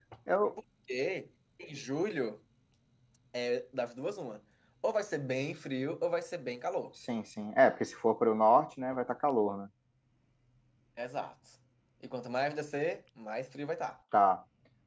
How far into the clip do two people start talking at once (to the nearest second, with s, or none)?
none